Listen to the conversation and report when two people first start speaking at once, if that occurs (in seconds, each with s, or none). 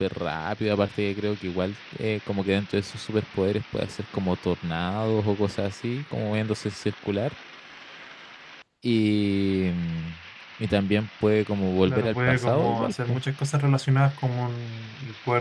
11.9 s